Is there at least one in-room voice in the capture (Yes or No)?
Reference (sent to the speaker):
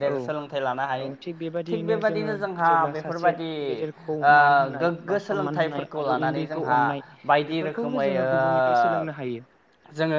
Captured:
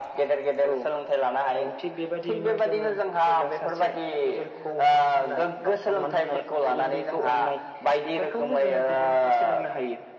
No